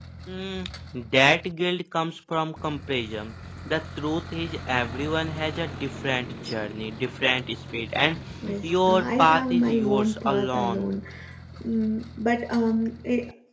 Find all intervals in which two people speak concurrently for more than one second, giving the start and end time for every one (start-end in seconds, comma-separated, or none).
8.6-10.9